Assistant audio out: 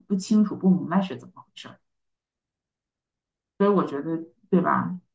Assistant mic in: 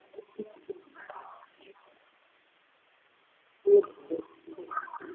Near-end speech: none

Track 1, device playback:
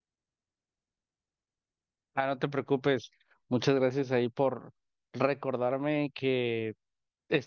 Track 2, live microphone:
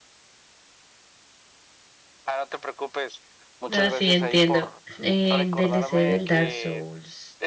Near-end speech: present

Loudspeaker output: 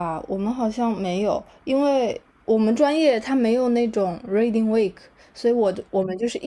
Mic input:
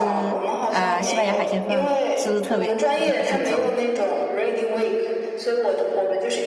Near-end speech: present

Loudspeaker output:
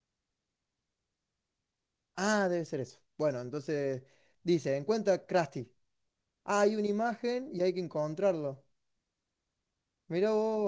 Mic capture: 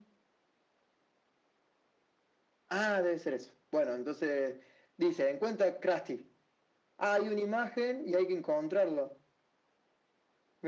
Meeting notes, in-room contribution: none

